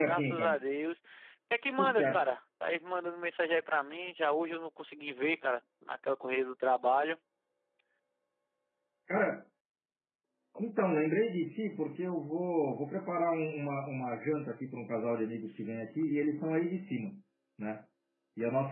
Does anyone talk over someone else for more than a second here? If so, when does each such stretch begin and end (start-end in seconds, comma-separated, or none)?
none